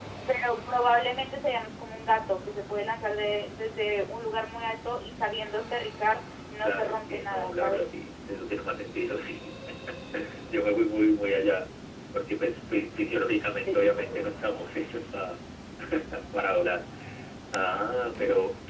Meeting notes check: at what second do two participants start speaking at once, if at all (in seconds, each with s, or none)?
6.6 s